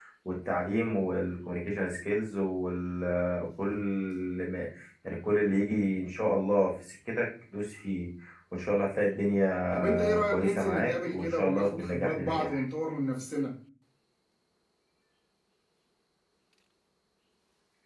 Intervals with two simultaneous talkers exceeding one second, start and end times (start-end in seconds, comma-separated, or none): 9.7-12.6